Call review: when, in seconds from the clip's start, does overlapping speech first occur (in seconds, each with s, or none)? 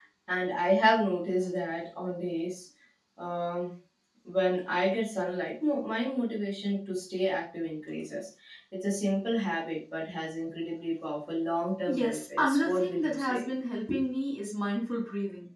11.9 s